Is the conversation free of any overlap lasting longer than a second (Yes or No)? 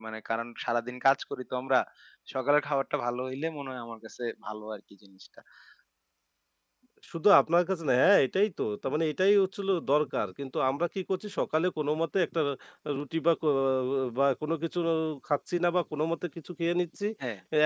Yes